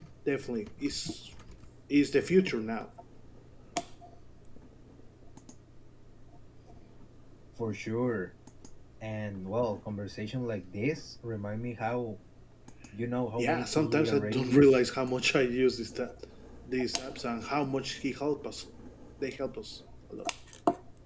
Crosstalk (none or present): present